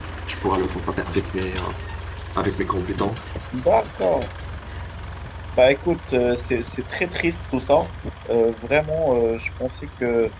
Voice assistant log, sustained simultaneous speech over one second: none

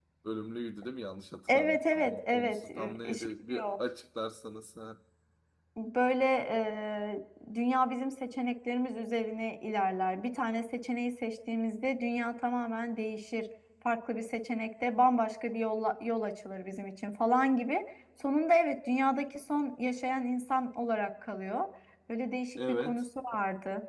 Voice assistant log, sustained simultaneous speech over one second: present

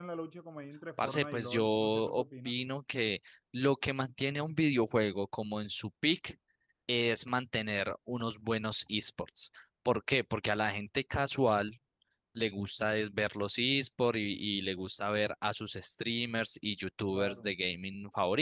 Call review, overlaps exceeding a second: present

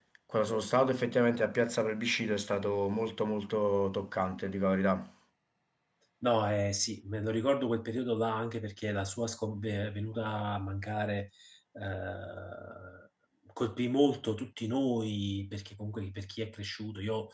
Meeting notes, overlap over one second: none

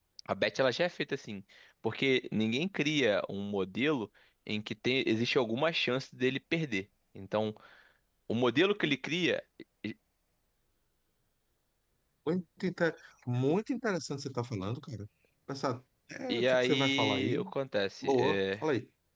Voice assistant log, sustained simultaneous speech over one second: present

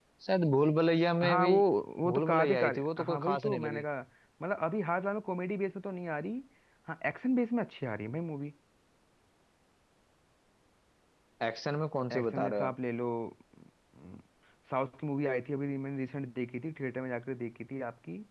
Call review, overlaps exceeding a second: present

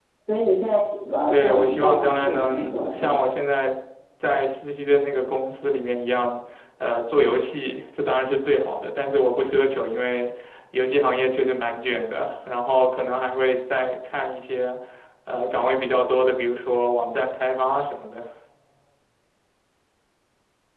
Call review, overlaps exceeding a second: present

